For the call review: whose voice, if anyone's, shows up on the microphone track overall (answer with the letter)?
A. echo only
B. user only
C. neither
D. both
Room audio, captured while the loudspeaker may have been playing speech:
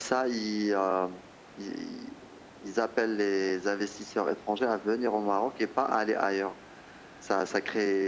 A